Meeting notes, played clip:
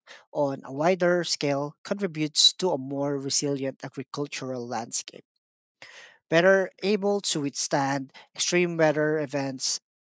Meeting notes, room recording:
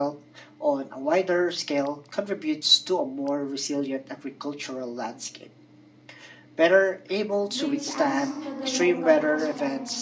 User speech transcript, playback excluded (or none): That brings us to the local aspect.